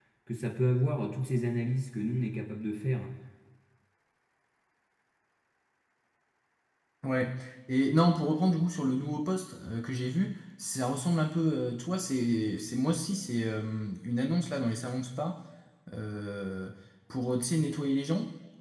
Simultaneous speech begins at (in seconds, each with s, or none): none